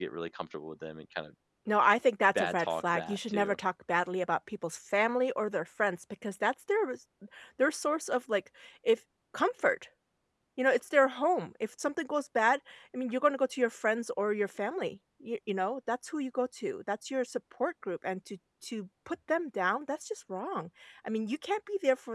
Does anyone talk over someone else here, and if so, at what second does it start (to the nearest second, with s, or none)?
2 s